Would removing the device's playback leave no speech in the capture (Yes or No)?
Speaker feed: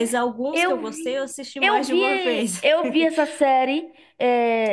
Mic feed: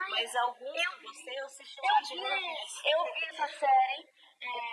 Yes